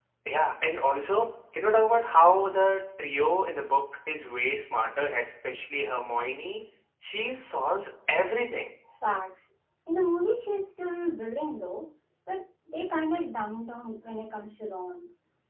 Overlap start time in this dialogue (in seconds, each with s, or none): none